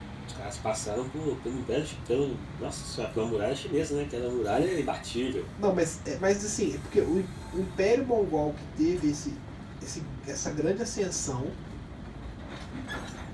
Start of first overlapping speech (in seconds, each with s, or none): none